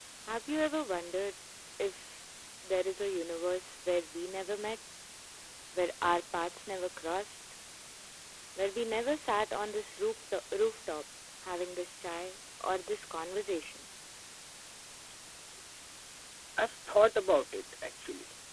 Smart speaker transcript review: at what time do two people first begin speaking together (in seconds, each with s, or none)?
none